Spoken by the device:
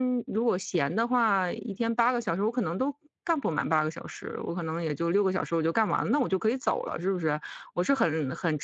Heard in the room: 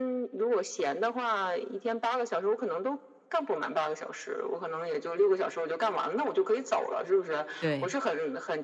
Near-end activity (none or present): present